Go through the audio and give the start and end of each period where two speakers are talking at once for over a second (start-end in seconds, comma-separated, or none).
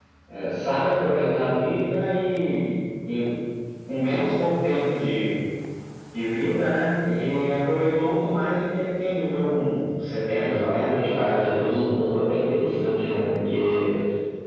10.4-11.8